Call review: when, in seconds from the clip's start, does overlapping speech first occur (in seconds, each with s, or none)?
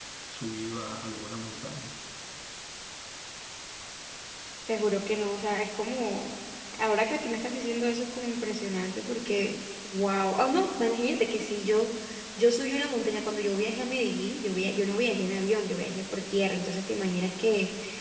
none